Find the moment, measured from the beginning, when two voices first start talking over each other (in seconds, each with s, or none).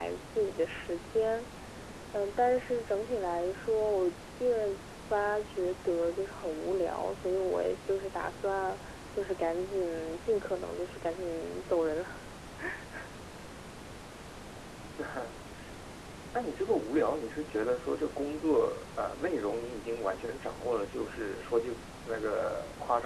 none